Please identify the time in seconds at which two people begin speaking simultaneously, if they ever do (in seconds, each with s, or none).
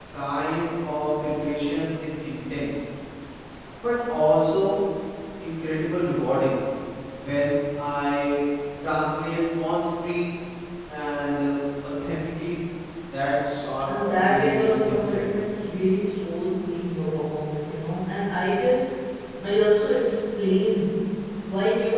13.8 s